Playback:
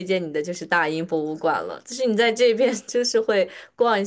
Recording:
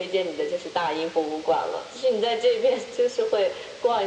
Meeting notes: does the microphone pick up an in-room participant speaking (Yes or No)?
No